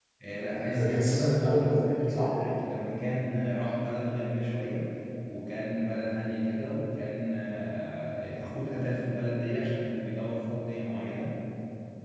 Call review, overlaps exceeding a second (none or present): present